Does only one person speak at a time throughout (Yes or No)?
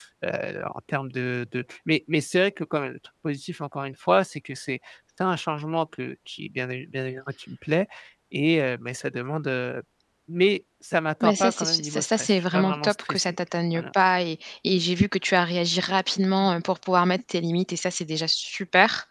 No